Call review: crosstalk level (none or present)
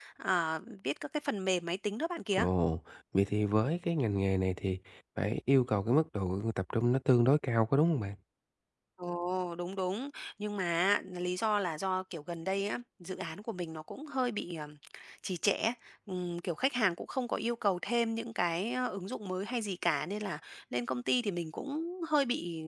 none